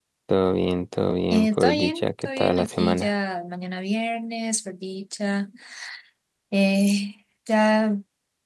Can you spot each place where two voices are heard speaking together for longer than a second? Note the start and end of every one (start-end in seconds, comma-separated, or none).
1.3-3.1